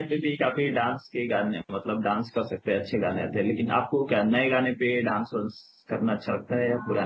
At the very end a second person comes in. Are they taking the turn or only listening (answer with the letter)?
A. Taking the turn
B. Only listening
A